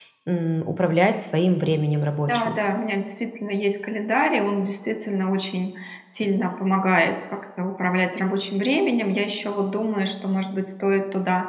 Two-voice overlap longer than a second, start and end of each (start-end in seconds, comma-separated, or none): none